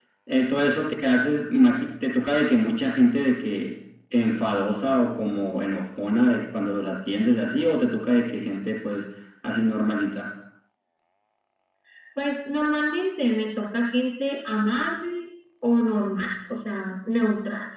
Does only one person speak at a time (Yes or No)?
Yes